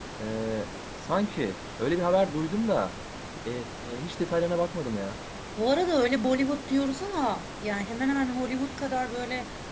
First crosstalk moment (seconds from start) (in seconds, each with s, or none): none